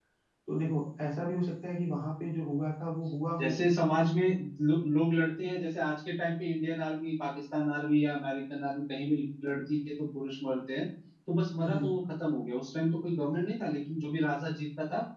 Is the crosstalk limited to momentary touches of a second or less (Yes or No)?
Yes